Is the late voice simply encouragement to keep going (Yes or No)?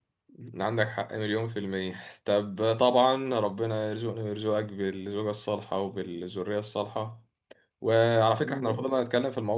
Yes